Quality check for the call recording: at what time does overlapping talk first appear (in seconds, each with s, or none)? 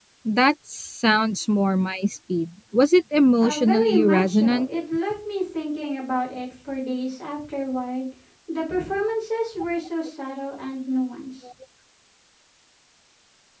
3.4 s